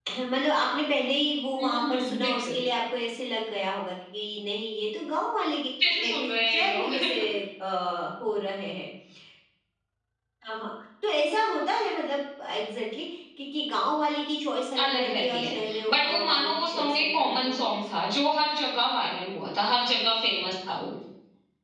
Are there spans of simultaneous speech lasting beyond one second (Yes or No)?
Yes